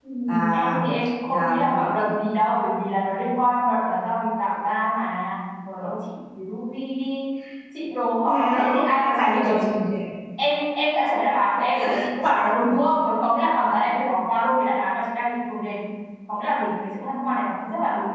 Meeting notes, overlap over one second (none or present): present